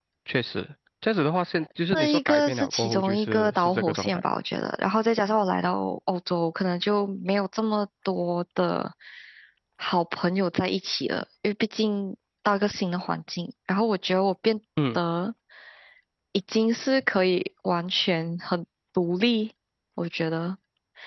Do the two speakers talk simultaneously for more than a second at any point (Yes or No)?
Yes